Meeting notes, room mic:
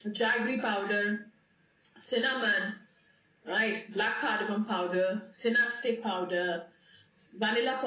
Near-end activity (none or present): none